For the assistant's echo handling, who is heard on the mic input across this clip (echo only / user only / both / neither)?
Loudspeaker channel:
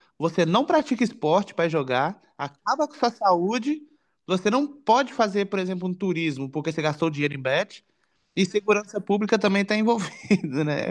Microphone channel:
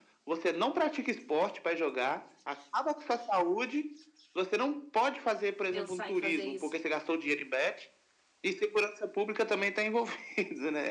both